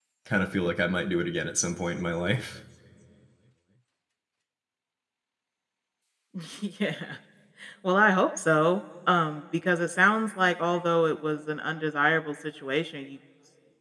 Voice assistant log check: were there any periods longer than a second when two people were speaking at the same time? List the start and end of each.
none

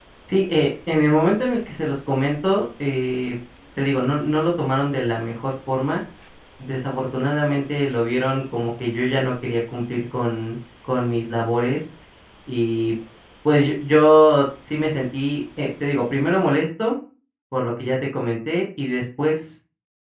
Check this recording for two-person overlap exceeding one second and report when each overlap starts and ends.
none

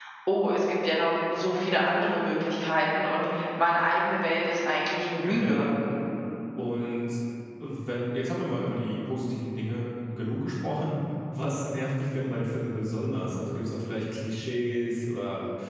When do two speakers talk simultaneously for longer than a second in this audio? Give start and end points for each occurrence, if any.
none

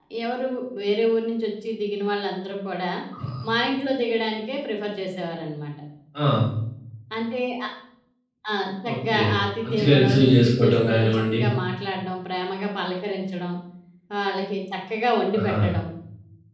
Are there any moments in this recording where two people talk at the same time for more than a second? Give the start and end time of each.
9.6-11.4

